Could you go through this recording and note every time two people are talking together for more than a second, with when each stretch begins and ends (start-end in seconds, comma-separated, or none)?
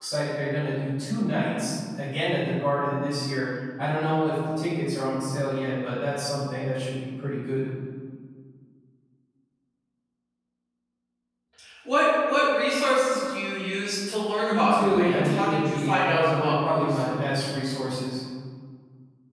14.5-16.8